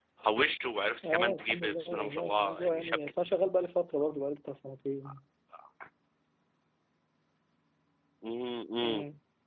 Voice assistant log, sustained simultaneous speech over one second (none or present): present